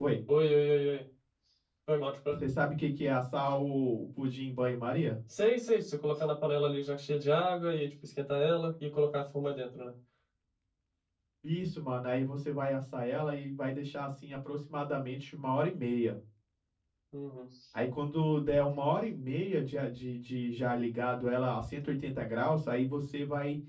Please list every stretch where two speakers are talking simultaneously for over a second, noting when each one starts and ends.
none

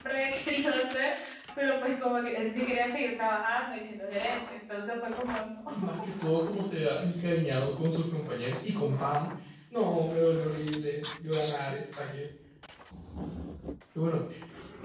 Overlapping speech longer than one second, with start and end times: none

